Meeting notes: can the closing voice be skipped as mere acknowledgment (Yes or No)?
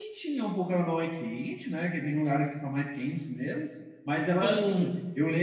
Yes